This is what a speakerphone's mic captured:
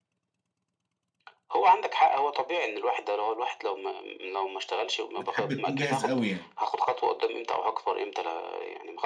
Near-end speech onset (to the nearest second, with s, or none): 5 s